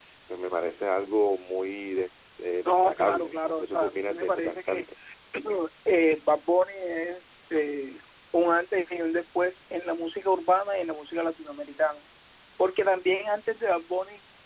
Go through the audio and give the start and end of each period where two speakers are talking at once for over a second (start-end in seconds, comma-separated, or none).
2.6-4.8